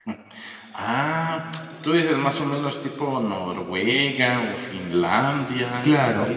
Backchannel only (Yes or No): No